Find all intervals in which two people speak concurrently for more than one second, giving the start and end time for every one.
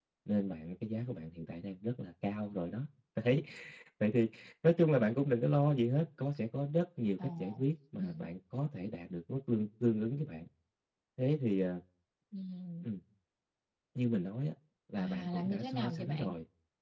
15.0-16.3

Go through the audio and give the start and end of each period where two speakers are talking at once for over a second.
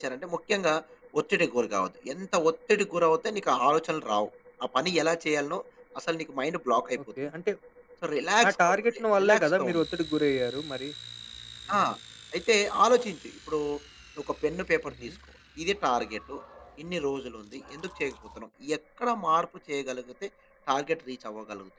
8.5-9.8

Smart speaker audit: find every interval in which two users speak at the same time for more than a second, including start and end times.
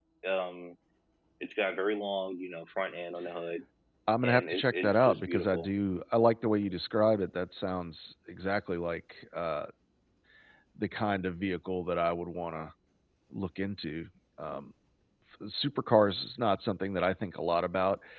4.2-5.7

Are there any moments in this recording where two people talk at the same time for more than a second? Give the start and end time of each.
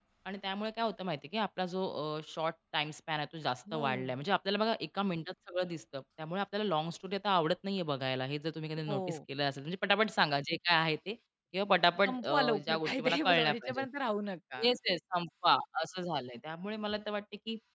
12.0-13.9

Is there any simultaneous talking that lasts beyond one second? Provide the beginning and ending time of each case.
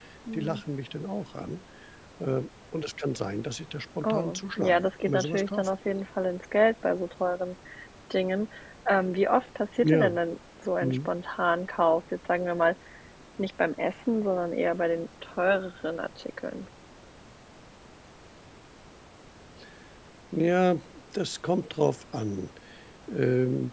4.0-5.8

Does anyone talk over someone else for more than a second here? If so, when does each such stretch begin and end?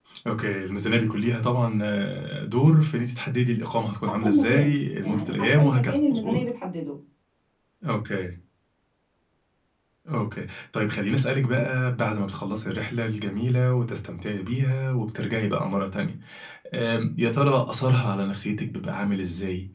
4.2-6.4

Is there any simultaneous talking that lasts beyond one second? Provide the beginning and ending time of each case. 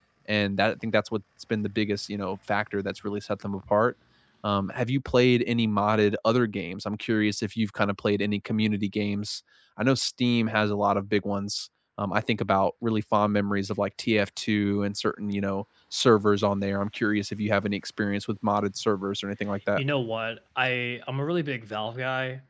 none

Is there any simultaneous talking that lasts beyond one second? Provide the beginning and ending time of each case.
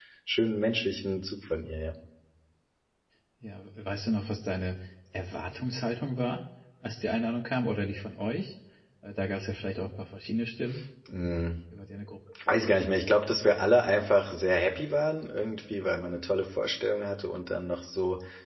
none

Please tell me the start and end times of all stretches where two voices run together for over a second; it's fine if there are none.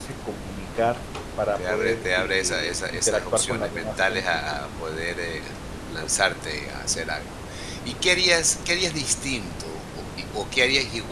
1.6-4.6

